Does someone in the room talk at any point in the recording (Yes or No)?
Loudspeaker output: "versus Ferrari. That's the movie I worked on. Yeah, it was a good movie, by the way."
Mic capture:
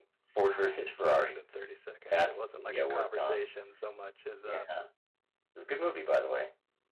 Yes